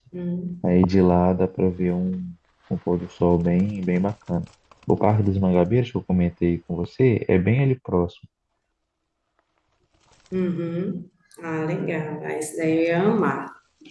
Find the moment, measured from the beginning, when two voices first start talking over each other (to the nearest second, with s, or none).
none